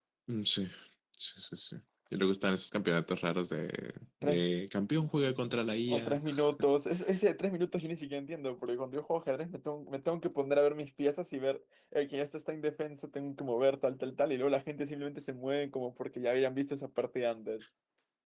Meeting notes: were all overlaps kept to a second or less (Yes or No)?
Yes